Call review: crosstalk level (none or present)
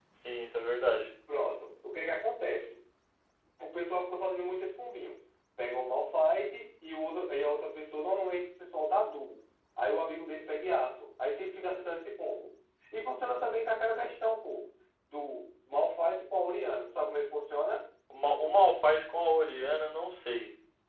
none